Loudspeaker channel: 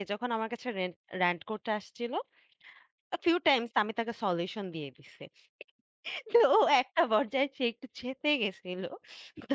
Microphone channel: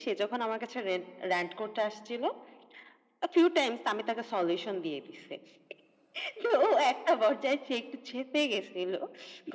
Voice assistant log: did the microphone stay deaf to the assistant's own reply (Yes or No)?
No